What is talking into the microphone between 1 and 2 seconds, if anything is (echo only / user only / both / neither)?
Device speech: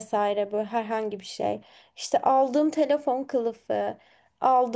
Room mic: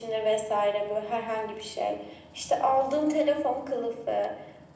echo only